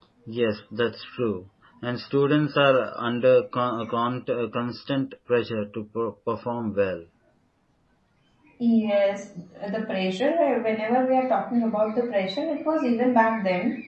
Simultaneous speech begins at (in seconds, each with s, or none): none